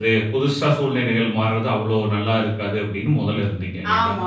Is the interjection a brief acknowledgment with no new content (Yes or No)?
No